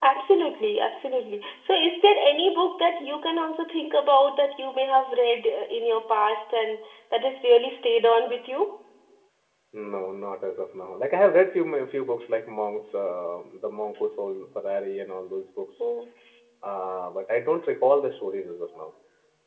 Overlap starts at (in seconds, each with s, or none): none